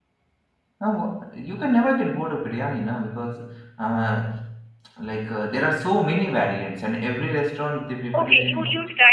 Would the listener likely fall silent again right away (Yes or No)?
No